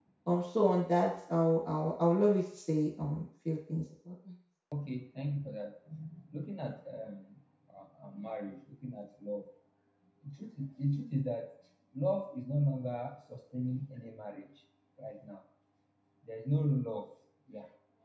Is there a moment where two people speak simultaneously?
No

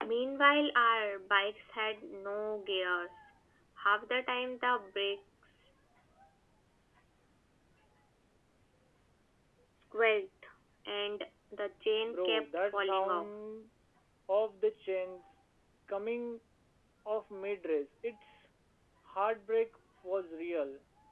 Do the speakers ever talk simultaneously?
Yes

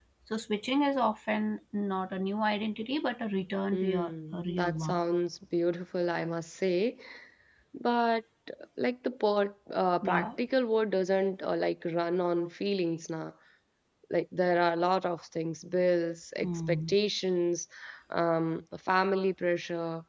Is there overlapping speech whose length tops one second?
Yes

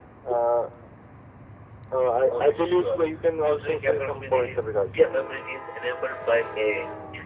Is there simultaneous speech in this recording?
Yes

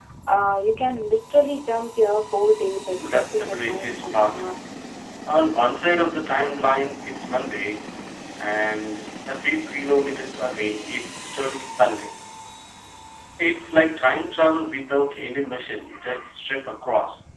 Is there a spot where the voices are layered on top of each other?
Yes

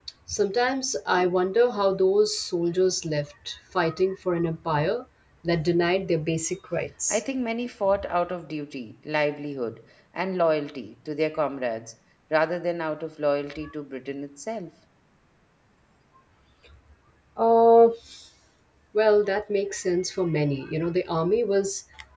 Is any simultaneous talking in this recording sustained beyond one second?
No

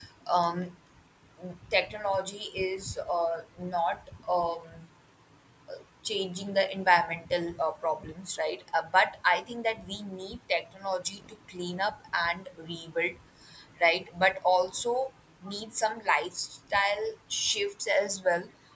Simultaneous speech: No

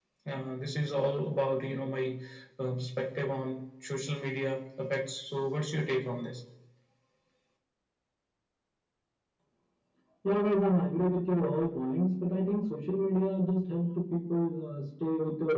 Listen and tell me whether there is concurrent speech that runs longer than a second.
No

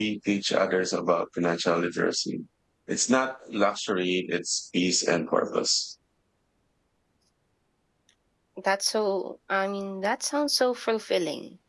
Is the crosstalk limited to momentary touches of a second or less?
Yes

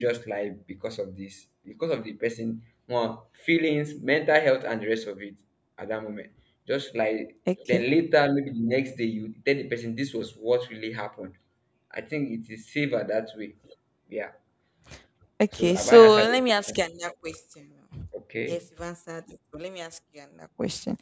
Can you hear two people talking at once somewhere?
Yes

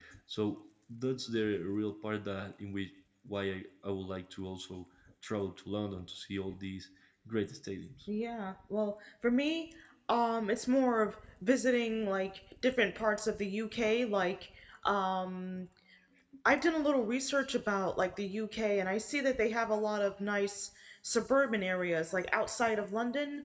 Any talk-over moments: No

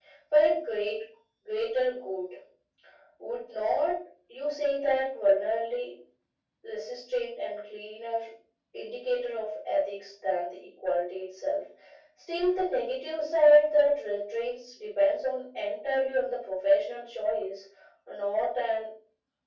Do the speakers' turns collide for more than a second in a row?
No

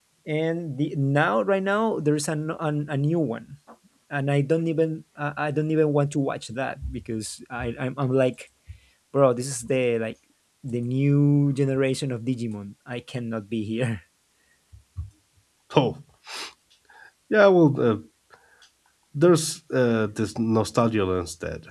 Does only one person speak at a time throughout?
Yes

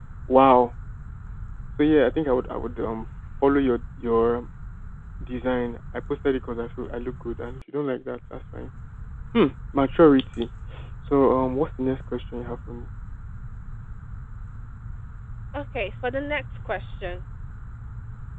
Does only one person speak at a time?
Yes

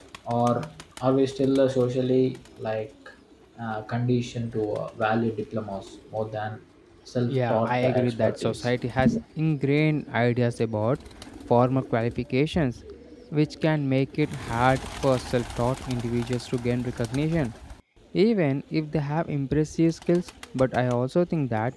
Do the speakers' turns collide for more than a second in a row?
Yes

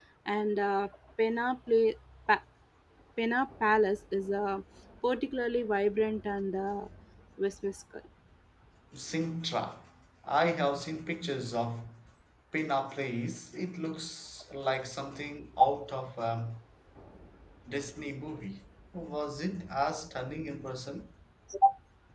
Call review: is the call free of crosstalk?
Yes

